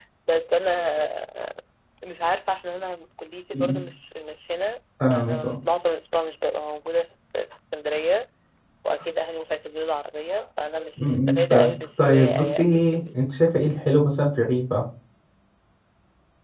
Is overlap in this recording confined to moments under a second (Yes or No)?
No